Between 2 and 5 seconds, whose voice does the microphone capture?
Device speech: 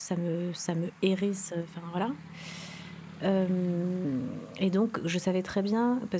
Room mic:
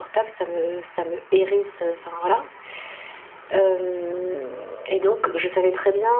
echo only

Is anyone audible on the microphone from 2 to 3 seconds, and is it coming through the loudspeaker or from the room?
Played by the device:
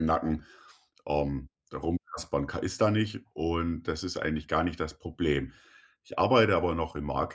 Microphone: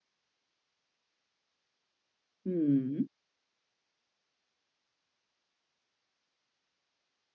user only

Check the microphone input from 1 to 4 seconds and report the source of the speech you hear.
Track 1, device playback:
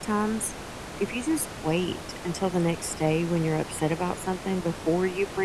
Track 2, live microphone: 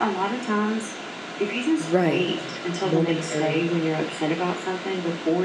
both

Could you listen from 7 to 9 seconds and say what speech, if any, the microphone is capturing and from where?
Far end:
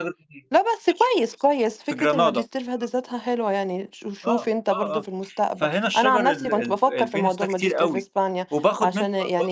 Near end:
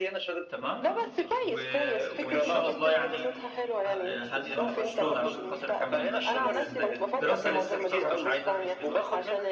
both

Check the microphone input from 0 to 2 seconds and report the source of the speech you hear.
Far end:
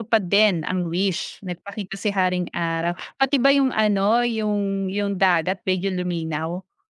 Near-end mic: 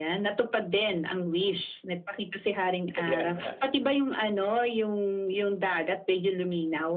echo only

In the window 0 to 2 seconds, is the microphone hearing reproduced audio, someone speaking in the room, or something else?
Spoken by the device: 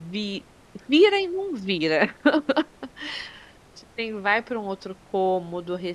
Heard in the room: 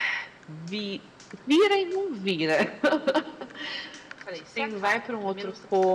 echo only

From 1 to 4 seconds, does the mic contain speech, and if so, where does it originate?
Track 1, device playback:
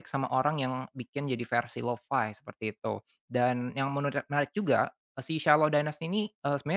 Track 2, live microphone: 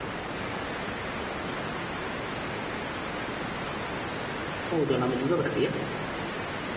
neither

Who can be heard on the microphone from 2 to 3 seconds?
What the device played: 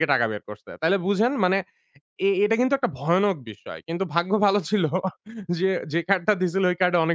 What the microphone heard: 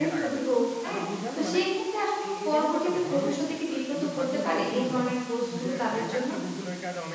both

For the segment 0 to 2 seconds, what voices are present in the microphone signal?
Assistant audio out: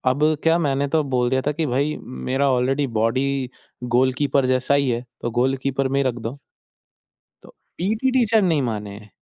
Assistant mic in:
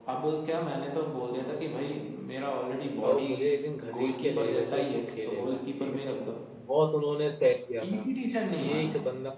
echo only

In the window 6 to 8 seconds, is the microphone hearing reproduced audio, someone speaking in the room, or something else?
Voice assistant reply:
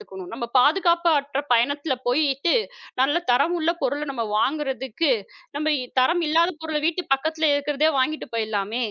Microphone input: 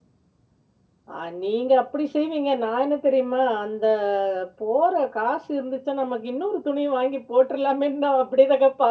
user only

